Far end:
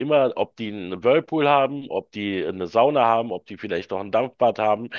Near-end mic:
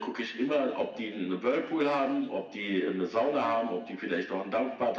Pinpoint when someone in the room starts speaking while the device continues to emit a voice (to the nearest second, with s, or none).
none